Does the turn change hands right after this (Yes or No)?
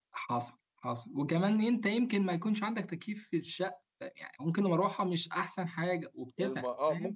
Yes